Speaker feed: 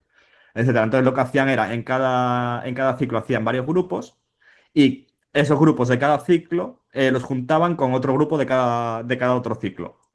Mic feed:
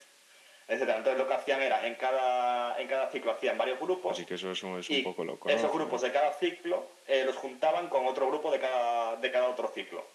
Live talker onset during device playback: 4.1 s

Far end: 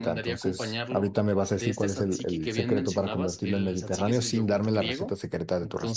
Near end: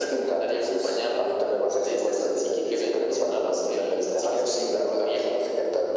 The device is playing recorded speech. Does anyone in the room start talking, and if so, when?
none

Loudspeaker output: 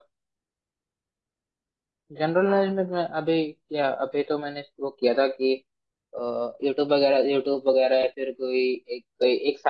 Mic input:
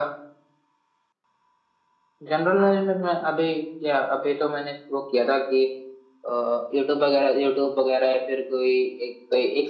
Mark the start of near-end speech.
none

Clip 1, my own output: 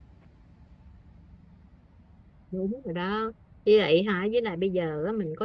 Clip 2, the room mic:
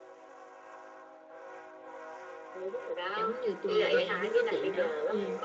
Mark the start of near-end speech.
3.1 s

